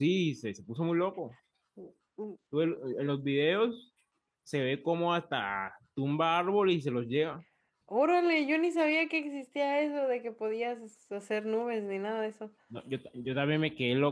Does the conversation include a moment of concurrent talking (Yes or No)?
No